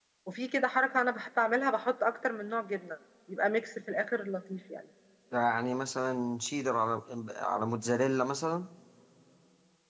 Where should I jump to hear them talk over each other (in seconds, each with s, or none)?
none